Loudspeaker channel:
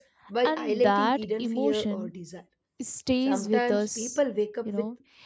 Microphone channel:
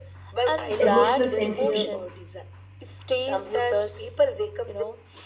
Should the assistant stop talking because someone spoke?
Yes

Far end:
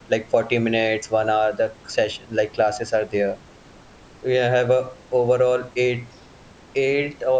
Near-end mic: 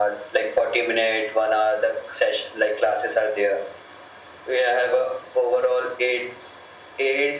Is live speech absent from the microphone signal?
Yes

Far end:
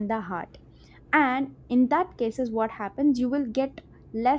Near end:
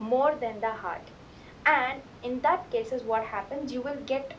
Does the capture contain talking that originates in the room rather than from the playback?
No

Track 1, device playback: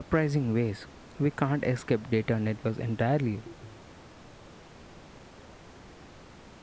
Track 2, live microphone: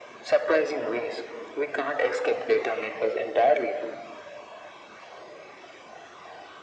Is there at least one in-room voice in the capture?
No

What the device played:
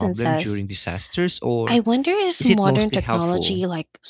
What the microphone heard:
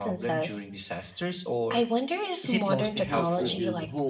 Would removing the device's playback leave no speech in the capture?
No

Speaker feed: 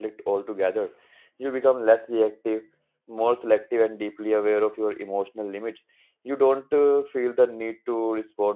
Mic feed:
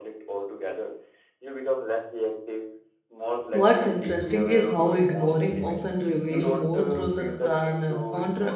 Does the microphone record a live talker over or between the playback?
Yes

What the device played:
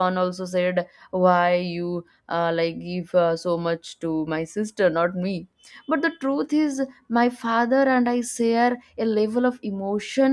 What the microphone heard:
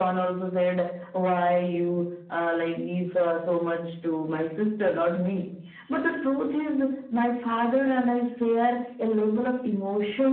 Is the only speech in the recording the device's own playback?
Yes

